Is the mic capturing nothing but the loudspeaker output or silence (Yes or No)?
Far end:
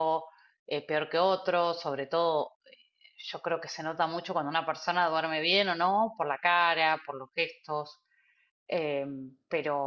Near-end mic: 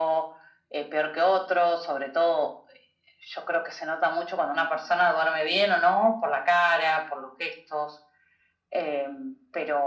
Yes